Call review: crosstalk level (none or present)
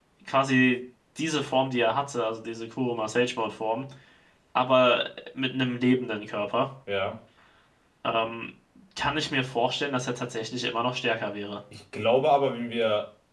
none